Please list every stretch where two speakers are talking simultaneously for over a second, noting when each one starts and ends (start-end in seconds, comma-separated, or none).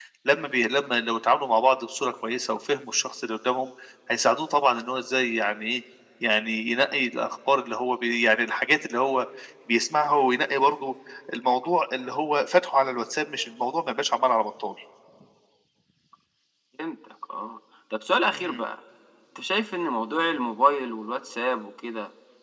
none